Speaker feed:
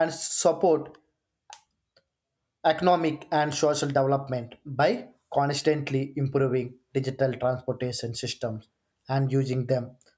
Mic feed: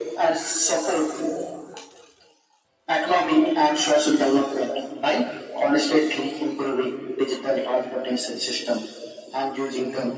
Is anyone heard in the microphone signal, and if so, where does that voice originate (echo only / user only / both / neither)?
echo only